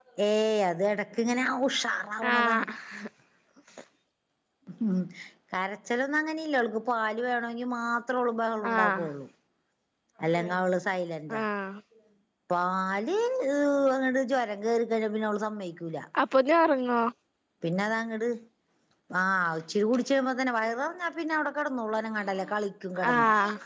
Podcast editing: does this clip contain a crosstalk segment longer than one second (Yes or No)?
No